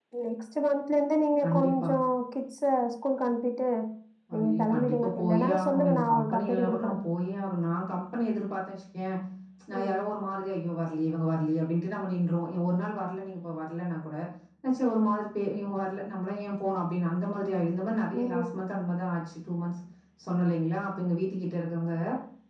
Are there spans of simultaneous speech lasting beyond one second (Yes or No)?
Yes